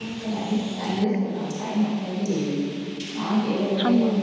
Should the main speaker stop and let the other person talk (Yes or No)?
No